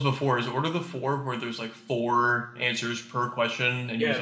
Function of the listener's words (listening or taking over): taking over